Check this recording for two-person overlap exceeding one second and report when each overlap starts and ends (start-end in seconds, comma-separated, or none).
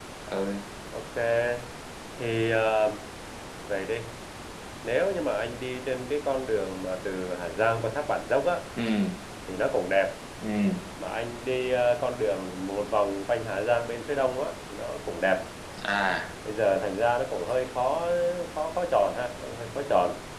none